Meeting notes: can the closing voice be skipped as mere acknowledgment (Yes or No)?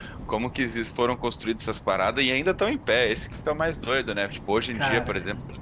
Yes